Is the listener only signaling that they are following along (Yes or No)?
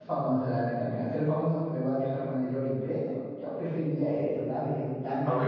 No